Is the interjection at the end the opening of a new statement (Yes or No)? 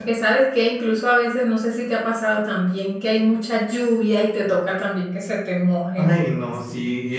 Yes